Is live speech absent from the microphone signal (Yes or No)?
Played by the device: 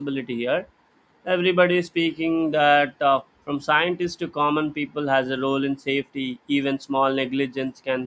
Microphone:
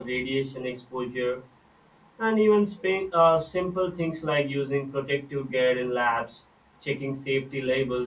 No